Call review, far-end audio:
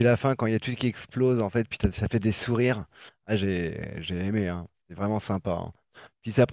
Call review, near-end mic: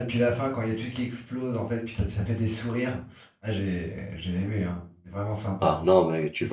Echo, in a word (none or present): present